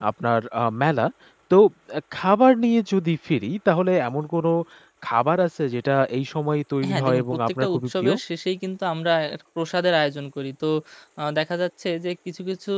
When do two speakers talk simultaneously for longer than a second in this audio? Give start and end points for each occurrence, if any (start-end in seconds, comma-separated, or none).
6.9-8.1